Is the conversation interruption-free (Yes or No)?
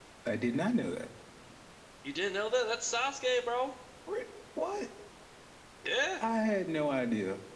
Yes